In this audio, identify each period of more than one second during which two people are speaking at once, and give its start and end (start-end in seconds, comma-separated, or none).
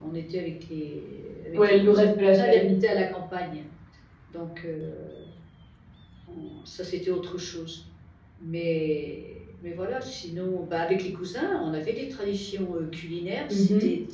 1.5-2.8